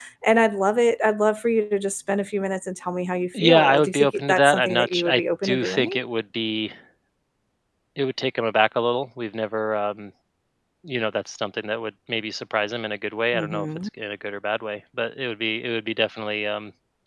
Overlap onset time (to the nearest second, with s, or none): 3 s